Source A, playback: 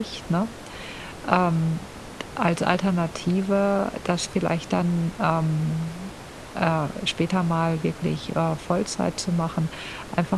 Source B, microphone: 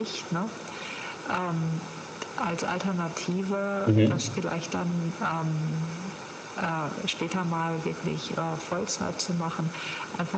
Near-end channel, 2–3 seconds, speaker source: echo only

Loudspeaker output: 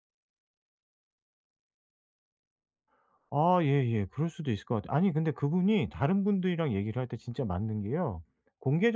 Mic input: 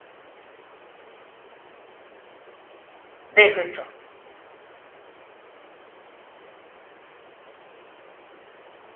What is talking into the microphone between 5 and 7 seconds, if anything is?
neither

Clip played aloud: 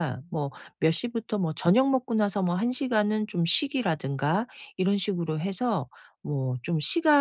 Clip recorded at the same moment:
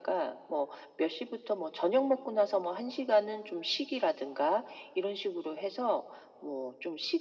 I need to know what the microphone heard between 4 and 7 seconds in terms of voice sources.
echo only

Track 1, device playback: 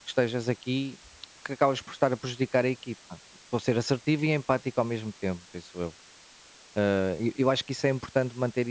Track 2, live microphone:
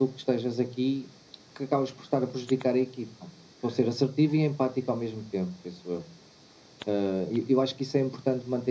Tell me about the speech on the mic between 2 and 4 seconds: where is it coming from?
echo only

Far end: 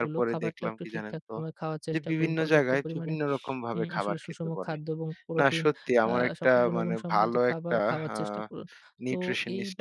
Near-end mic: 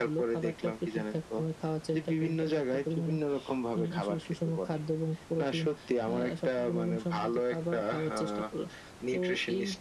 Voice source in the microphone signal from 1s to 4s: echo only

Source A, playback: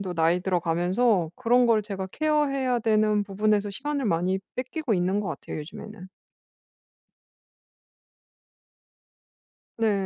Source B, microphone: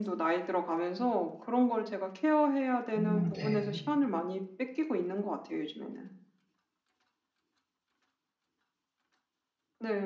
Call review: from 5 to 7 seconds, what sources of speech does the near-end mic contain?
echo only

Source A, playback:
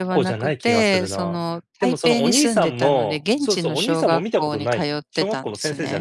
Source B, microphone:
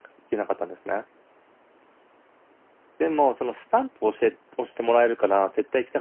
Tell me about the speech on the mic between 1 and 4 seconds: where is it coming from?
user only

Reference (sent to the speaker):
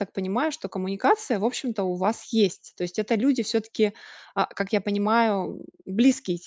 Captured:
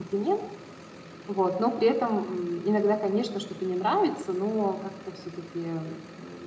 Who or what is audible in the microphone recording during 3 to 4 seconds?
user only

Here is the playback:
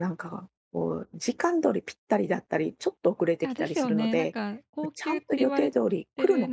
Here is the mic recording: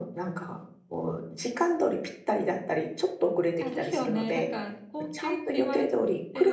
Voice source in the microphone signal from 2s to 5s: echo only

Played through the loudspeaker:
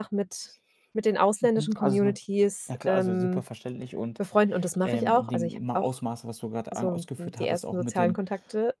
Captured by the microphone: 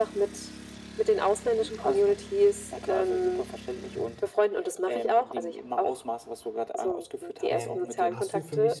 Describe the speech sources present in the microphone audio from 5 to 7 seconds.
echo only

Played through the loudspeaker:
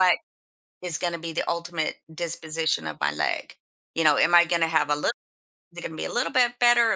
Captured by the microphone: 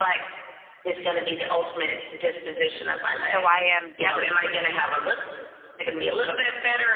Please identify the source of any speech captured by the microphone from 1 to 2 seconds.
echo only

